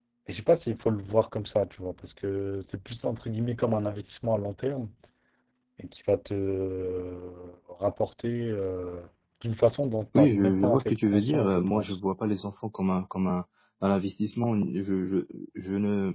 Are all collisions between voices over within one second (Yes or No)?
No